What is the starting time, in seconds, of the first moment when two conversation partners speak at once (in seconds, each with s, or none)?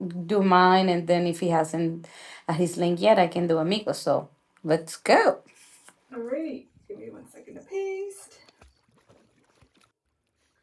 none